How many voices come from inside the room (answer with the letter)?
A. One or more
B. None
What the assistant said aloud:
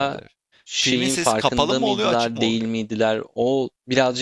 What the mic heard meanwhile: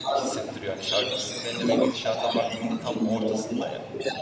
A